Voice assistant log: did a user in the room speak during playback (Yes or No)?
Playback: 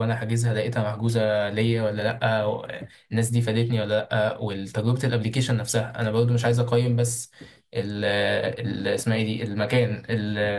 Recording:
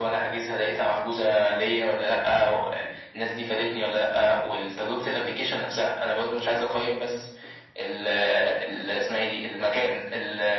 No